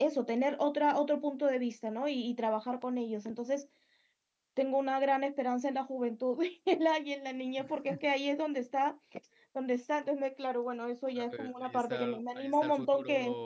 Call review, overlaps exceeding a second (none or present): present